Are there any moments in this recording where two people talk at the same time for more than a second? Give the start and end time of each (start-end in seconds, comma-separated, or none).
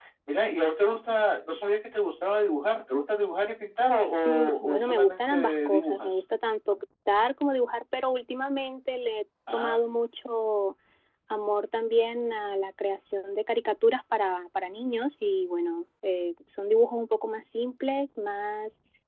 4.2-6.2